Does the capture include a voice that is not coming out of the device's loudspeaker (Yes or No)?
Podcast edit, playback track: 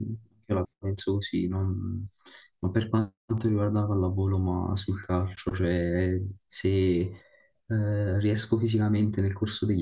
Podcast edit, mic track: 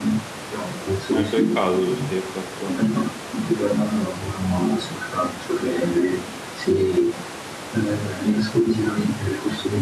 Yes